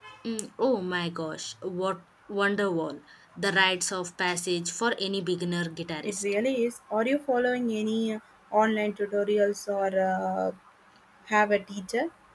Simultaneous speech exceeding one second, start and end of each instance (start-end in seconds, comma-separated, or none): none